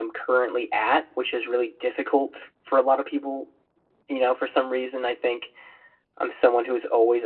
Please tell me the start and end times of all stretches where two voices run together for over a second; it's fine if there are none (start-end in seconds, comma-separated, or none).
none